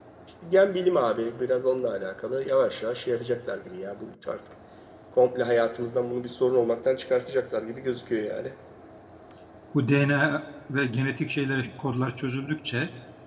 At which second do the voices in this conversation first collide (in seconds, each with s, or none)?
none